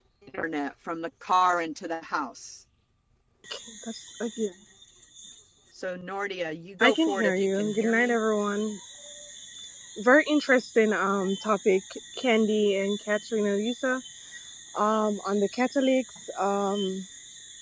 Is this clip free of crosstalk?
No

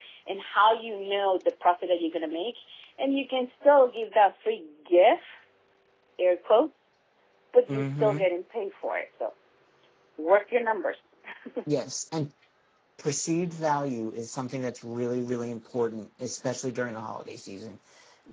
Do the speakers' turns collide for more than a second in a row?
No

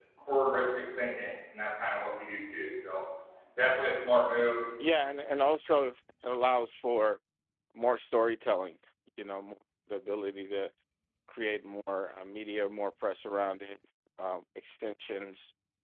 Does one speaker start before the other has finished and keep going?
No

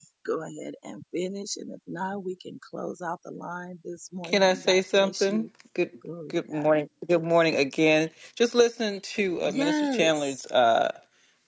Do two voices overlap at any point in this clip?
Yes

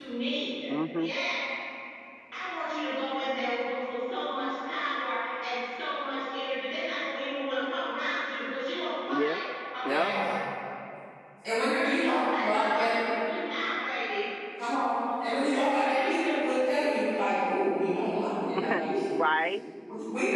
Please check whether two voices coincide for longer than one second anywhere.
Yes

